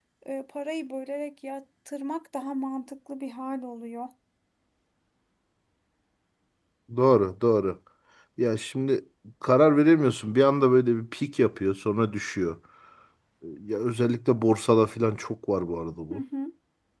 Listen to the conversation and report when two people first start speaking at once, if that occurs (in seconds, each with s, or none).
none